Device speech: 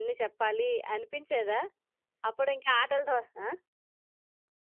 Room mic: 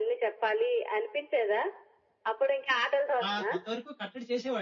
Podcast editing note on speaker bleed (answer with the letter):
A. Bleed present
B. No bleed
A